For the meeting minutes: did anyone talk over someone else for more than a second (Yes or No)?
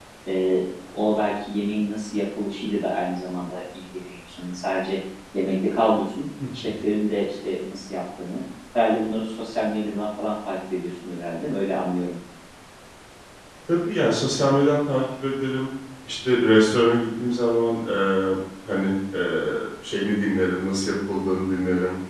No